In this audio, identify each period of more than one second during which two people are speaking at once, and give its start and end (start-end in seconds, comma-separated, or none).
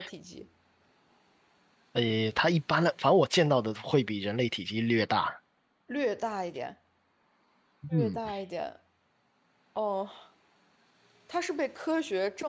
none